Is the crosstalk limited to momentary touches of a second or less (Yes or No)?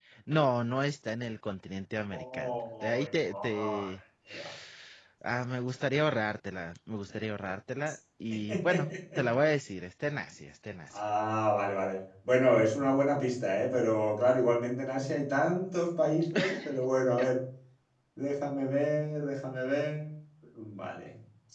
No